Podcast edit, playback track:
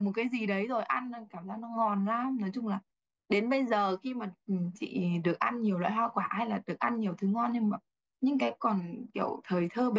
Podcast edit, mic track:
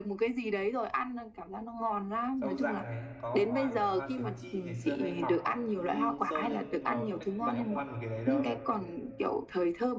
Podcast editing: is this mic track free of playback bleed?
No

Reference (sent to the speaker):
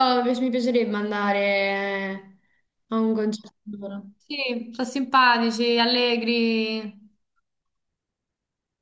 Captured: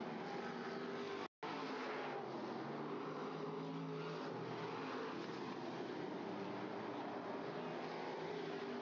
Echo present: No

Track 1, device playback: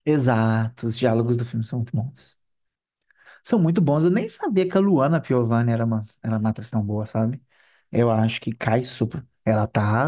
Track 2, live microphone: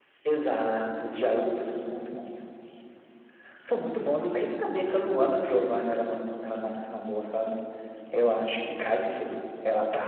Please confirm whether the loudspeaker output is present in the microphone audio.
Yes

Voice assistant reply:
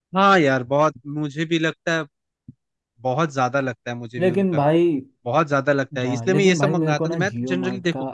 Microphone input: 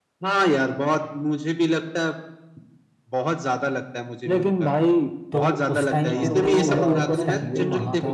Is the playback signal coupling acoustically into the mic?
Yes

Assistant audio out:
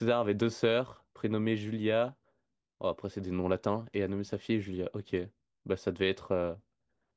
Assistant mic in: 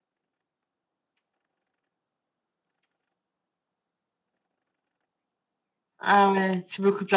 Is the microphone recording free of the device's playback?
Yes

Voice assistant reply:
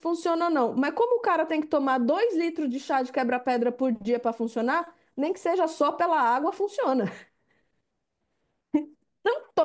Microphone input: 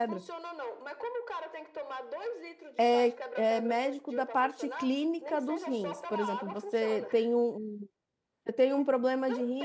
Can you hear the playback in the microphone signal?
Yes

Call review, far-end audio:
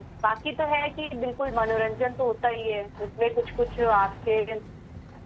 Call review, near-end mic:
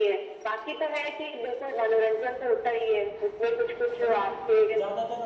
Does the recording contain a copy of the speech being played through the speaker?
Yes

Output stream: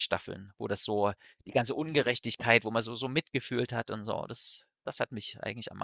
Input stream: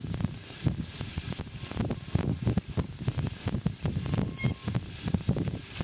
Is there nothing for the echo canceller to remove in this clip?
Yes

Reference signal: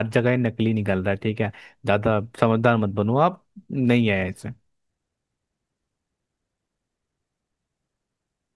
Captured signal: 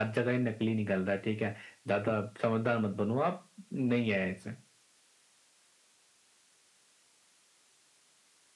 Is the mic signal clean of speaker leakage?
No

